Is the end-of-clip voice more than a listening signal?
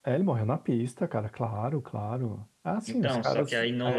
Yes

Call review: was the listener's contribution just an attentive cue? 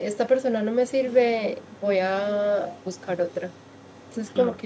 Yes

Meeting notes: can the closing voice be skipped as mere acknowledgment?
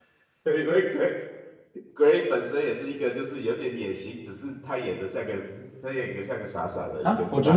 No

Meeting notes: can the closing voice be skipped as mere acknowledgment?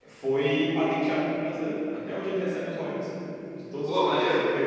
Yes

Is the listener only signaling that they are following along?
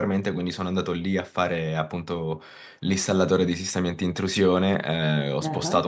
Yes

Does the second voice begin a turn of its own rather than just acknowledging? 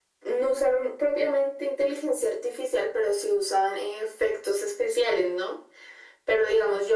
No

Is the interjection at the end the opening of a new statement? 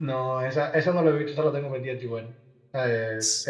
No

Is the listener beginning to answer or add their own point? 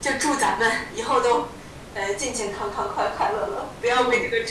Yes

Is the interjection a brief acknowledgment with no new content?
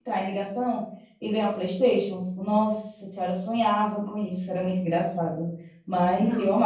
Yes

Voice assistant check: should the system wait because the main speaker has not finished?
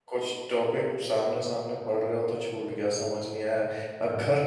Yes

